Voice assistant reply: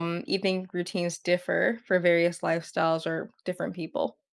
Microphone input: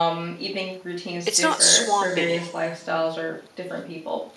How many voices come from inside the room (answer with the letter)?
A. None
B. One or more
B